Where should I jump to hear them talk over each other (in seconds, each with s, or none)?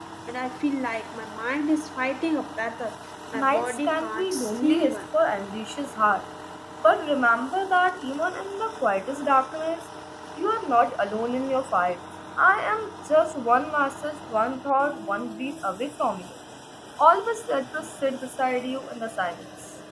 3.3 s